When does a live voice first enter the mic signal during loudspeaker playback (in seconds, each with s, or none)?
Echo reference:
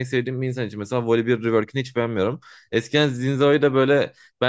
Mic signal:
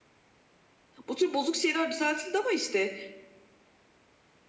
1.1 s